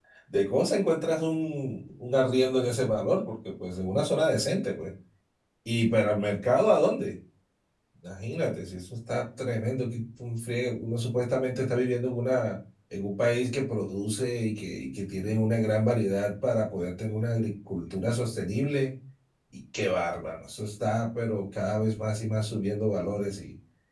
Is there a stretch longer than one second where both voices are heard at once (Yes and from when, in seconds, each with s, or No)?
No